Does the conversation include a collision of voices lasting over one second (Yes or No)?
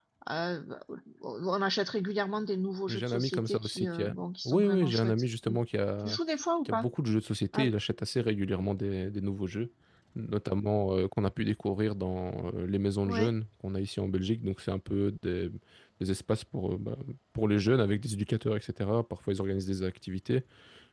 Yes